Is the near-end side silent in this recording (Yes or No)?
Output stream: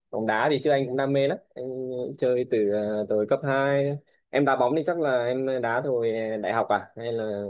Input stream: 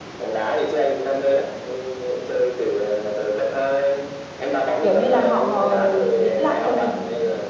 No